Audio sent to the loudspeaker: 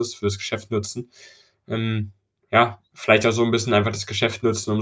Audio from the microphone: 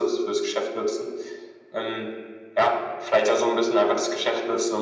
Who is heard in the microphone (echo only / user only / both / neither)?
echo only